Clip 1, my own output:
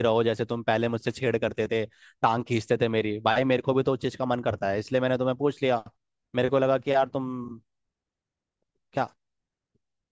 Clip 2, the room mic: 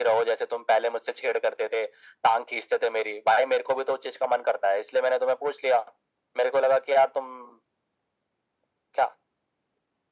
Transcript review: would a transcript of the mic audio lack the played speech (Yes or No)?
No